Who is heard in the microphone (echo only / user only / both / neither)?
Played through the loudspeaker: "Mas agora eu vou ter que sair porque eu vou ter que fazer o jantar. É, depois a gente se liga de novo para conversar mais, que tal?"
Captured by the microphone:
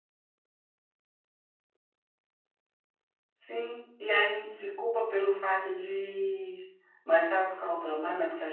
user only